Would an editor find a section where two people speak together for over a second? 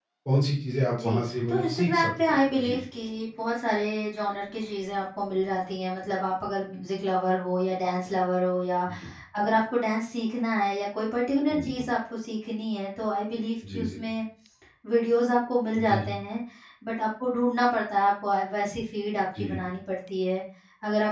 Yes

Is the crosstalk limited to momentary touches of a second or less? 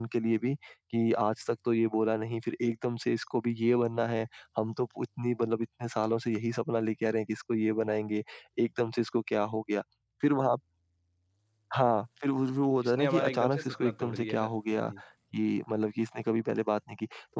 No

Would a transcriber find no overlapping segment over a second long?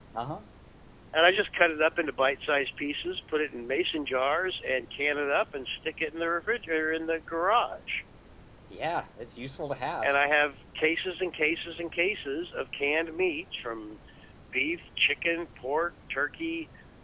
Yes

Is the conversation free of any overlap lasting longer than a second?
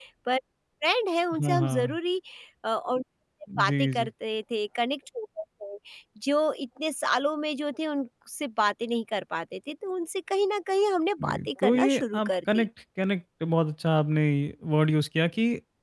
No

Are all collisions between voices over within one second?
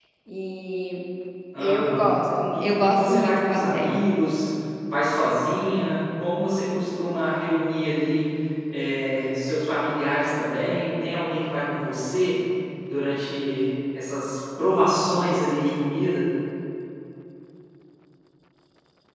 No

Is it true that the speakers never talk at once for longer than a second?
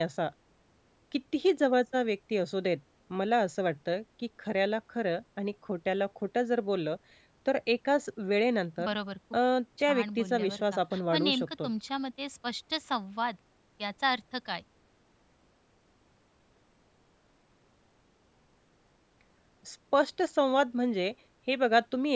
No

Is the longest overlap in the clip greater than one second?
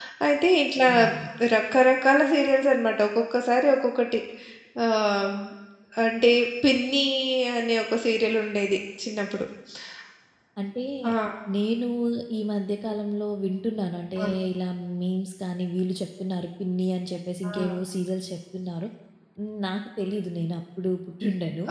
No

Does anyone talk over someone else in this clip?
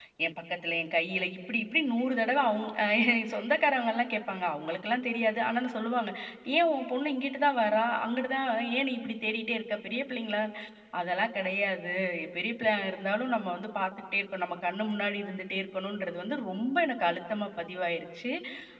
No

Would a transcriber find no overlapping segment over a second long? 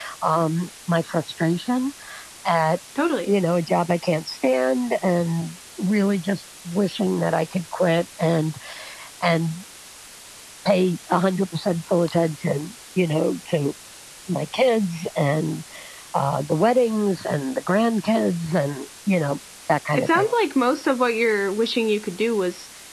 Yes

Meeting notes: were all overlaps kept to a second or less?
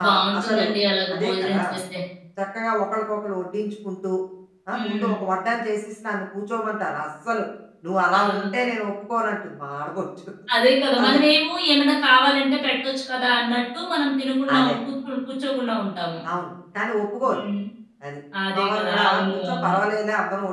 No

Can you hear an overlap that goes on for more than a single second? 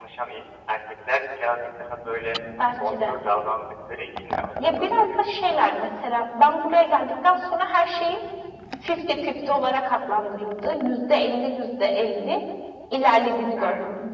Yes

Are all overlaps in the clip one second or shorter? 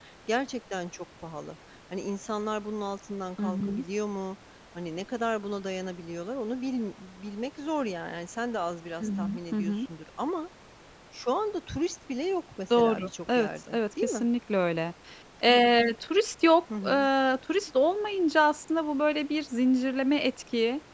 No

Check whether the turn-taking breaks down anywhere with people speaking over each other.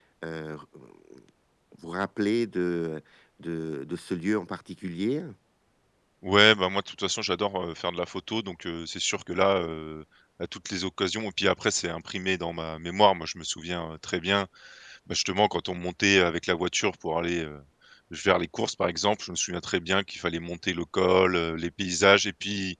No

